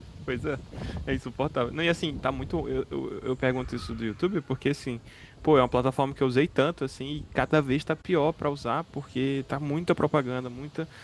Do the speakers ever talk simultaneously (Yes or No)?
No